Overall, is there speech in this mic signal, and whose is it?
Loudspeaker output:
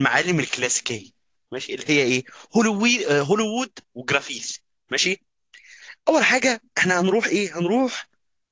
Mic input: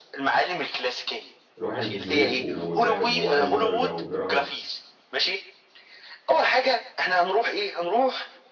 both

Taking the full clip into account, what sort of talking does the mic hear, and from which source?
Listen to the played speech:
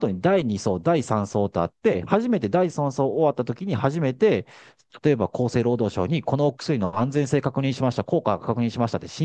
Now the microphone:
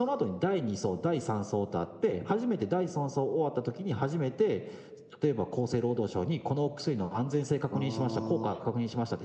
both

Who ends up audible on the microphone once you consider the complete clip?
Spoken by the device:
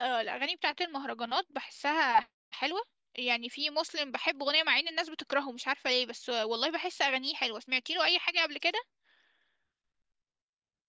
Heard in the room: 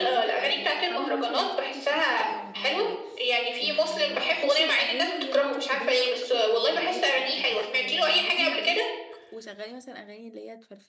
both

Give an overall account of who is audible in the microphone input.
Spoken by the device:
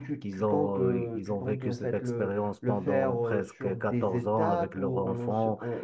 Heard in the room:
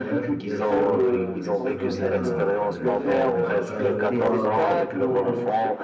both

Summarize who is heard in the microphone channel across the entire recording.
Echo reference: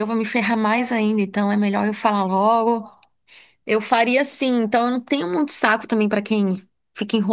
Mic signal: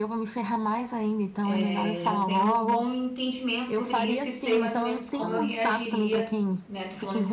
both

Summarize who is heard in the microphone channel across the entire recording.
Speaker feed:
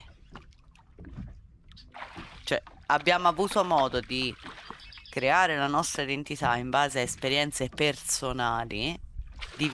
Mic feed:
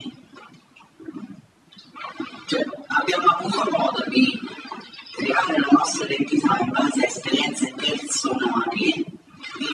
echo only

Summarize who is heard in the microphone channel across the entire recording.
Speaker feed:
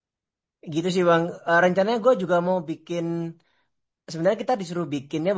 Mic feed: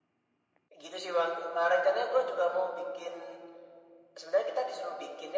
echo only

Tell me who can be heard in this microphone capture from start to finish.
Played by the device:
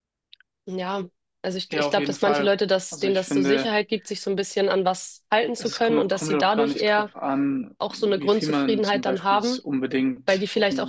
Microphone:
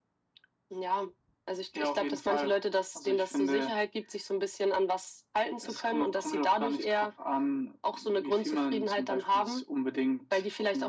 echo only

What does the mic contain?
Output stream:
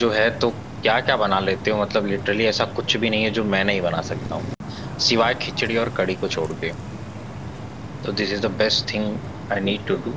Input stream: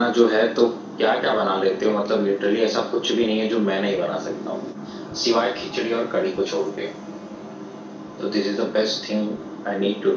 echo only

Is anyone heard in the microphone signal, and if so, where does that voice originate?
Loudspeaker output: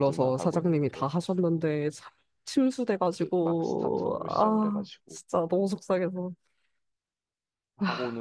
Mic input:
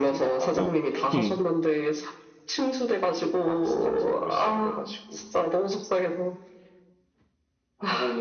both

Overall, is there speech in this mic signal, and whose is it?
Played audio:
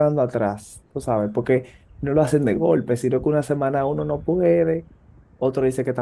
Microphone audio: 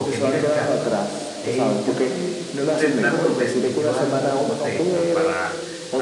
both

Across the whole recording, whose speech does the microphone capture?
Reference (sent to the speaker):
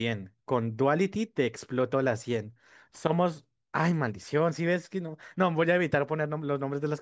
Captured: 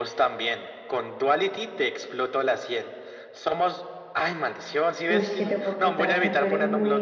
both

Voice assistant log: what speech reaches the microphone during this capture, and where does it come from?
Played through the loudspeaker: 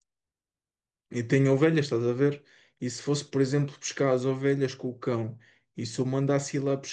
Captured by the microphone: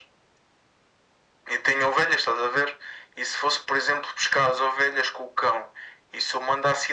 echo only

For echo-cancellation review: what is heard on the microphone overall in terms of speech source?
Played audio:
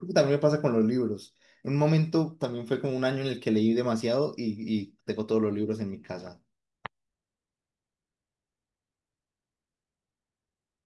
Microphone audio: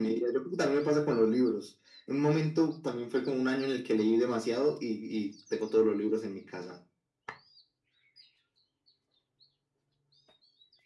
echo only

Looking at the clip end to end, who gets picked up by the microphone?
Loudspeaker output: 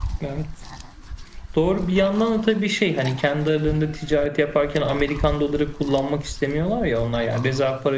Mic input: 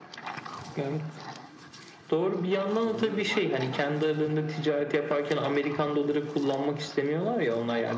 both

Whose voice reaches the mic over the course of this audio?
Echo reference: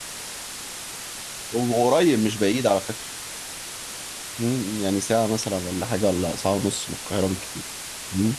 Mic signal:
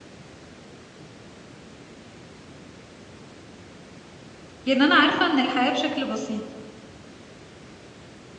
user only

